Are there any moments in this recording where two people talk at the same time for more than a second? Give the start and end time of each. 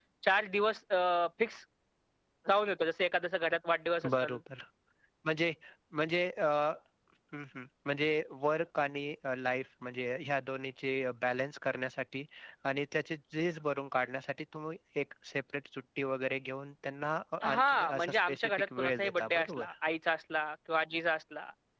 17.4-19.7

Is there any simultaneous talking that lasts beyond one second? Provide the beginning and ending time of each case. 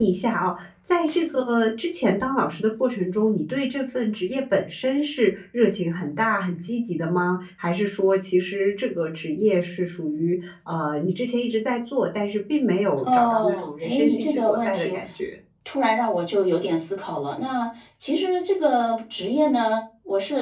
13.0-14.9

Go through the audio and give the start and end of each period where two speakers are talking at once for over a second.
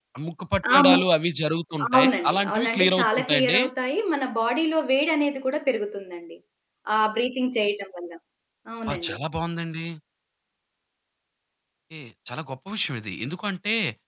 1.9-3.6

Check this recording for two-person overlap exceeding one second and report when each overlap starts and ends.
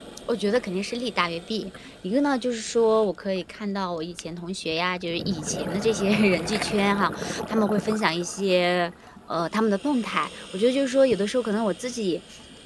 none

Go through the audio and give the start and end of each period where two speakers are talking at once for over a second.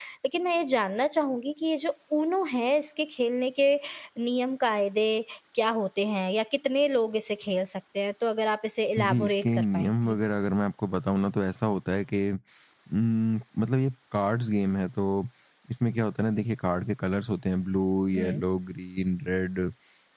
9.0-10.3

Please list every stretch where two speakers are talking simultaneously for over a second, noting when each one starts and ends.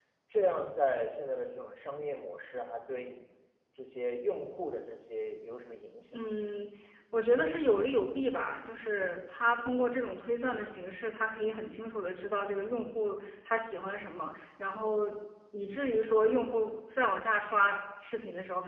none

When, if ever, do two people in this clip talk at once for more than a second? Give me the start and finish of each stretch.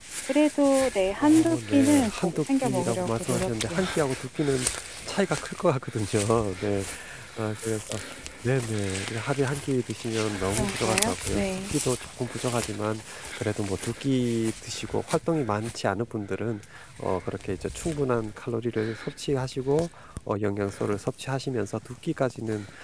1.2-3.8, 10.3-11.7

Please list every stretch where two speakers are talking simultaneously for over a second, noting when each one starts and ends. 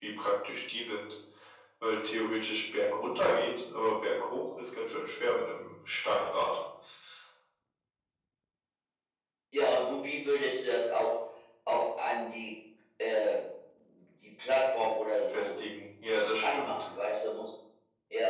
none

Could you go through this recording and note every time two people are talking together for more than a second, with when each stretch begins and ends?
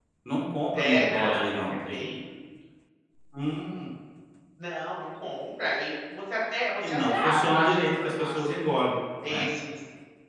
0.7-2.2, 6.8-8.6

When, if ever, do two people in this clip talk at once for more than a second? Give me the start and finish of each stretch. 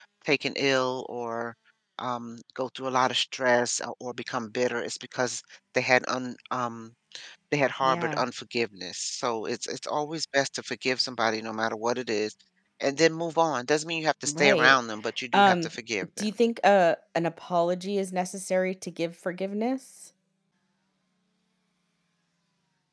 none

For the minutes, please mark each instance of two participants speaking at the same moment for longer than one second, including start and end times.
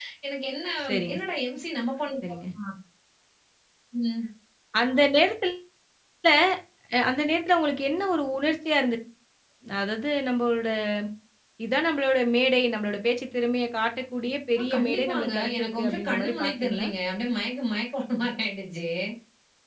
14.6-16.9

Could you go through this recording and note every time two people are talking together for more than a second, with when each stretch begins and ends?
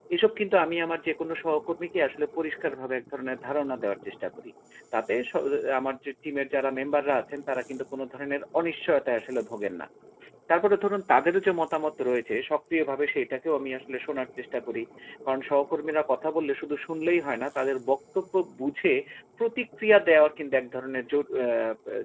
none

